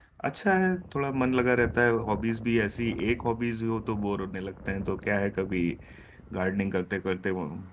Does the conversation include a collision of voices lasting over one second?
No

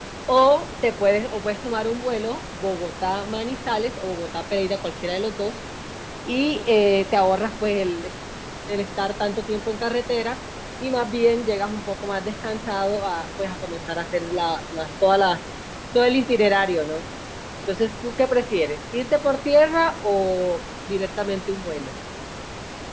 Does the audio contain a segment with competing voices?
No

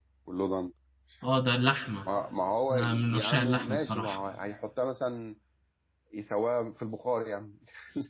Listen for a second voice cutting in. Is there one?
Yes, from 2.7 s

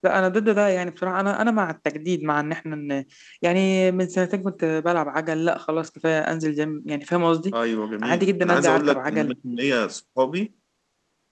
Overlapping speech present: Yes, from 8.0 s

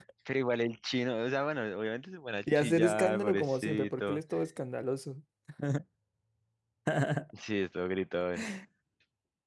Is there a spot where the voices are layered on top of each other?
Yes, from 2.5 s

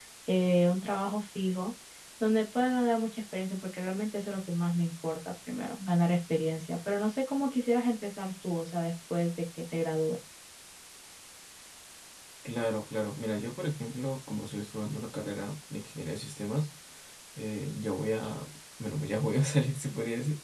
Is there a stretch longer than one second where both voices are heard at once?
No

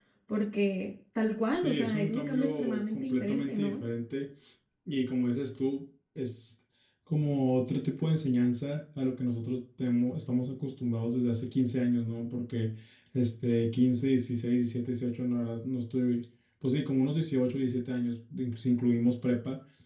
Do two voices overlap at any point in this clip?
Yes, from 1.6 s

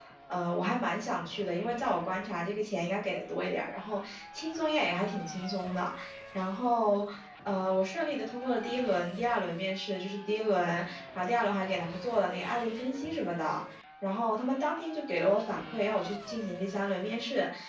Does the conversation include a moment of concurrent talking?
No

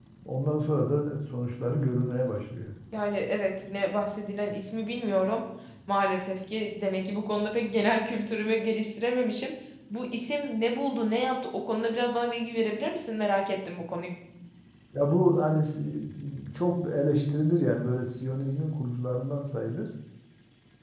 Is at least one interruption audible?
No

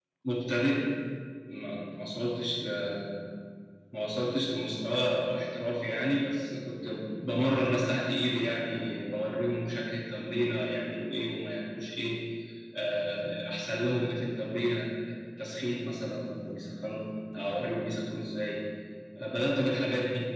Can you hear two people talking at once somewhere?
No

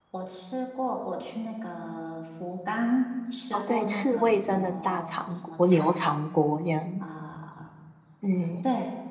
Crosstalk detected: Yes, from 3.5 s

